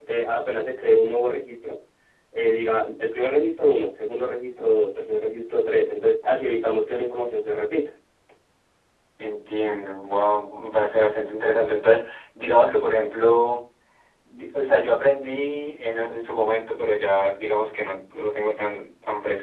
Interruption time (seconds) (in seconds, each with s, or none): none